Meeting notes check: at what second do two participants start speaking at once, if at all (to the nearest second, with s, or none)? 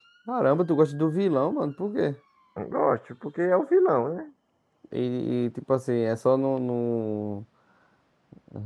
none